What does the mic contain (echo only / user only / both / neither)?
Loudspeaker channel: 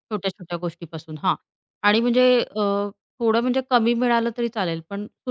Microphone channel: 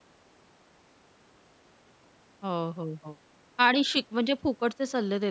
user only